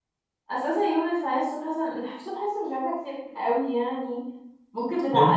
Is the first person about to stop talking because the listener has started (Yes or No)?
No